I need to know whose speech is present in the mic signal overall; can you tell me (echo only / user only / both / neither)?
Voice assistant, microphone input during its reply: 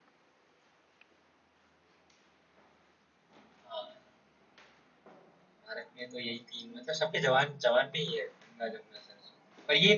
echo only